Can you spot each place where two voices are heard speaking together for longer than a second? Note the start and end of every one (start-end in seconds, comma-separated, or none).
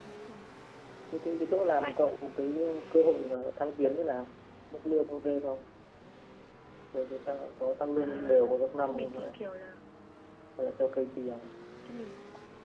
8.0-9.4